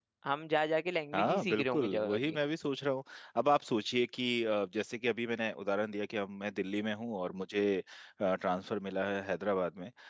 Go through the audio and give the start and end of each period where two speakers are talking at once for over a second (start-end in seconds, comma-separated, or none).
1.1-2.4